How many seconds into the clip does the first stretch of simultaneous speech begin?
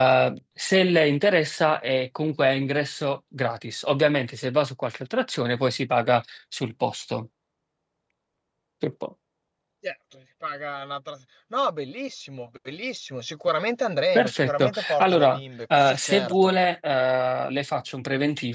14.2 s

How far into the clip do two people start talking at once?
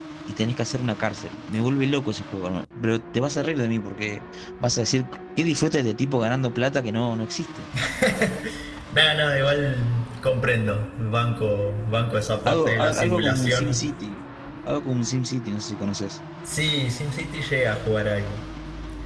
12.4 s

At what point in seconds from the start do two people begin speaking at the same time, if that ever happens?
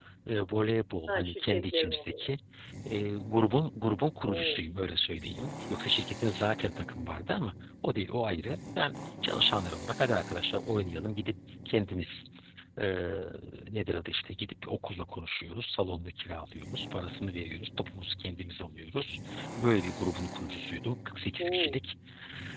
1.1 s

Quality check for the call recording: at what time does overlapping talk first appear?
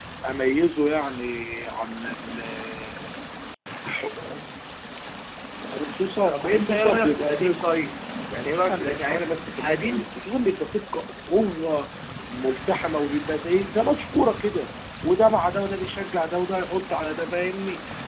6.3 s

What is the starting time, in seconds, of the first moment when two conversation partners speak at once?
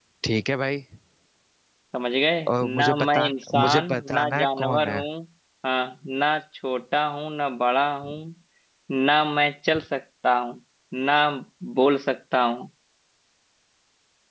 2.8 s

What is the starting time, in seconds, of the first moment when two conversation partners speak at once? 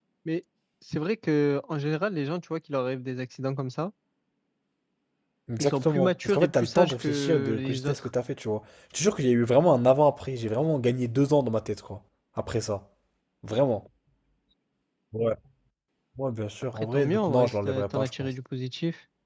5.6 s

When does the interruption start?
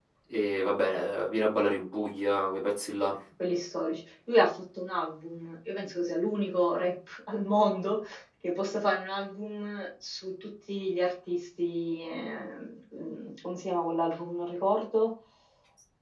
none

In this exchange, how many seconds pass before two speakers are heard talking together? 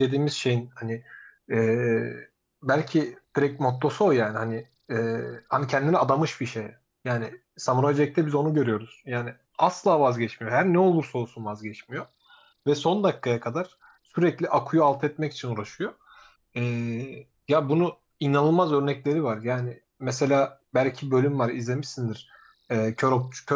none

